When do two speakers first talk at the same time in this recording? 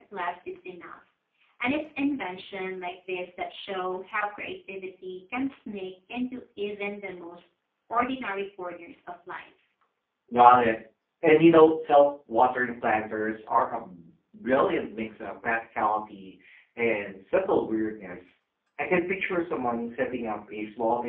none

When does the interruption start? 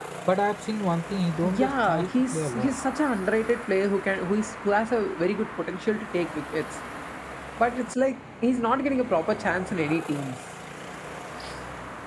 1.4 s

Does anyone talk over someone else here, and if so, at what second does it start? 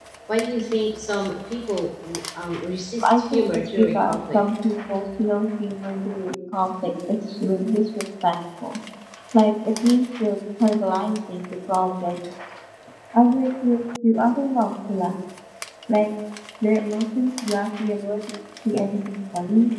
3.0 s

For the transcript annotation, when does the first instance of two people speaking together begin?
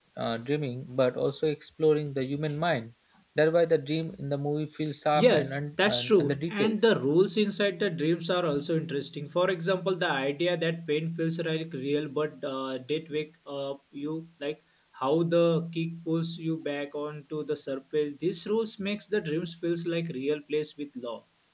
5.2 s

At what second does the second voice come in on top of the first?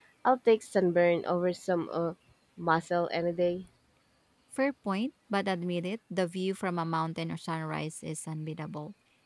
none

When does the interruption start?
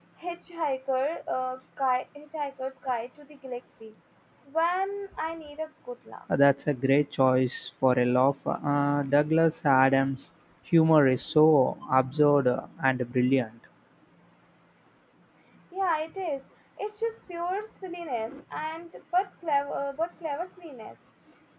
none

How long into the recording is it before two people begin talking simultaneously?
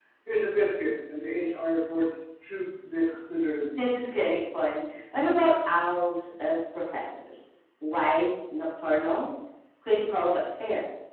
none

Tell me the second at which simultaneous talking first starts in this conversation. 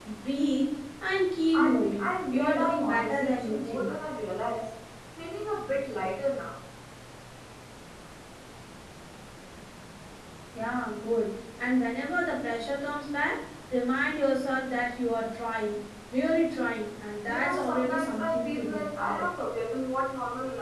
1.5 s

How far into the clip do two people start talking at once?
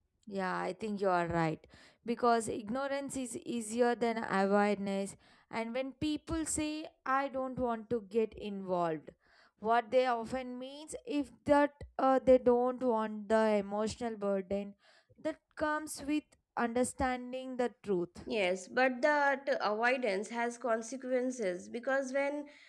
none

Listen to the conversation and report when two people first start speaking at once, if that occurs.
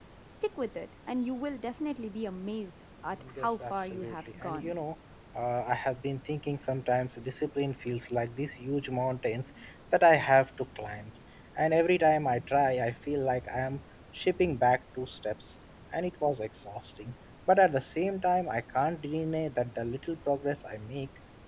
3.2 s

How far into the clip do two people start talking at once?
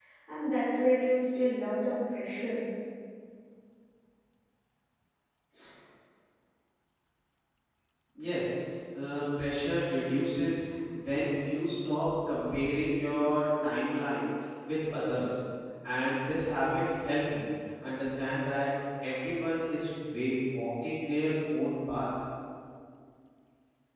none

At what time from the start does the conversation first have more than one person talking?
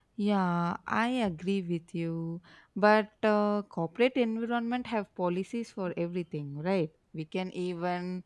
none

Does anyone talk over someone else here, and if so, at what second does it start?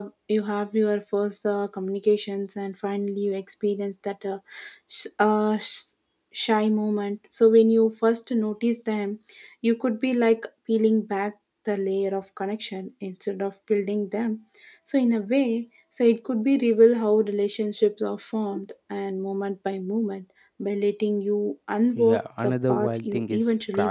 21.9 s

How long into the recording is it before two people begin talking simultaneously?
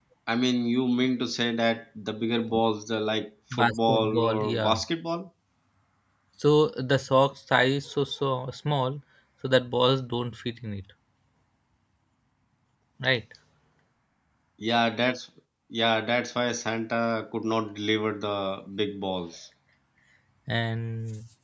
3.5 s

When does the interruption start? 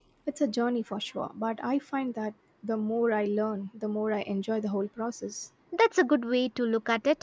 none

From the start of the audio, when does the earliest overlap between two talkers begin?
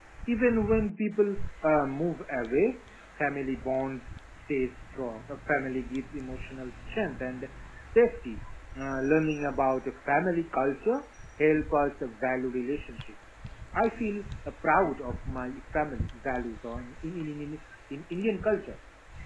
none

